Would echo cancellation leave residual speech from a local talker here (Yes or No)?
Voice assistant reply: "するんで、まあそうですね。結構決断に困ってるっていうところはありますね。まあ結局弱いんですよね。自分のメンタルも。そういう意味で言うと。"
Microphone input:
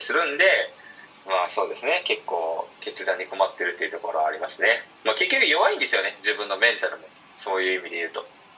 No